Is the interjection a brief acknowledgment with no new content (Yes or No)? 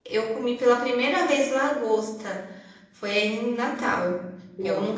Yes